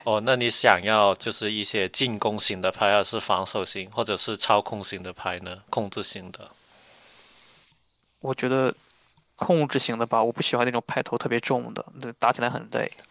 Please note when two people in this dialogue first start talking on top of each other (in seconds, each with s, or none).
none